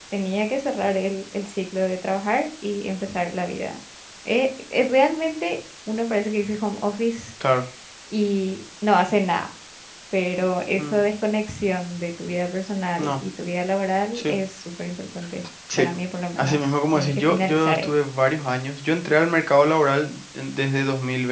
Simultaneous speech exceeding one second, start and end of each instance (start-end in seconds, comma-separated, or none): 16.4-17.9